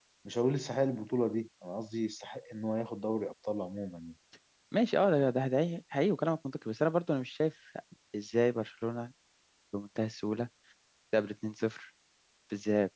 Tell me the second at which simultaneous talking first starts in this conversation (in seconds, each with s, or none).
none